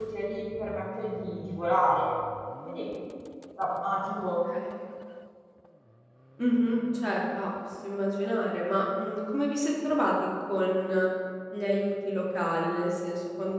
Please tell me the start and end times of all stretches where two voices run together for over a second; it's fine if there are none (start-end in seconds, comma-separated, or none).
none